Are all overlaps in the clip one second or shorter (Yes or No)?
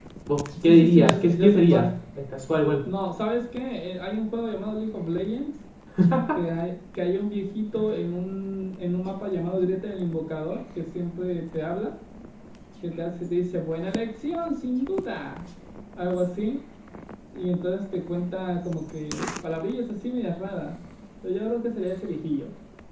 No